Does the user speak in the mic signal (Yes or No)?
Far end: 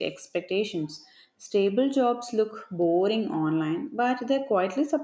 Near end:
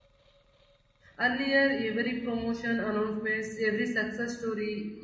Yes